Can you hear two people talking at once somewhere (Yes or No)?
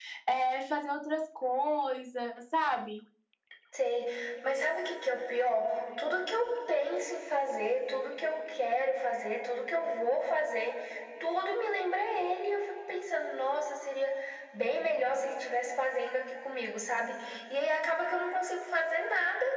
No